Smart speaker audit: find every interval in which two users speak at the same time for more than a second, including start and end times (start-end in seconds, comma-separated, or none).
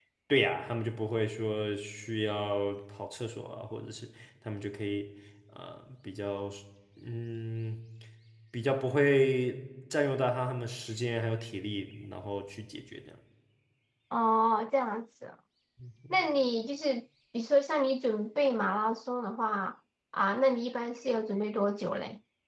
none